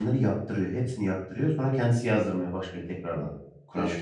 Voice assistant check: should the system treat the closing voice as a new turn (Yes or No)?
Yes